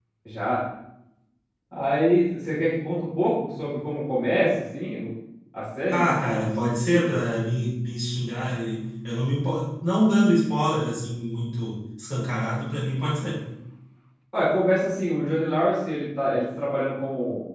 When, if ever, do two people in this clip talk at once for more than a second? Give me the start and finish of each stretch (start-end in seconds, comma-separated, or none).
5.9-7.2